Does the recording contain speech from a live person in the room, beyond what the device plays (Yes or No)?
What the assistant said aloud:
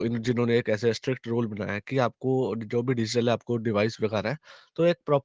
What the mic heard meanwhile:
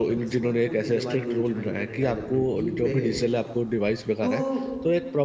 Yes